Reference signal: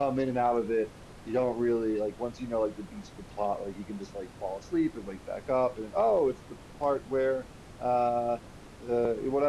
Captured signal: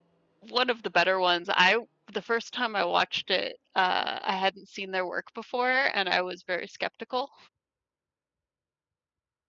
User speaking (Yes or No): Yes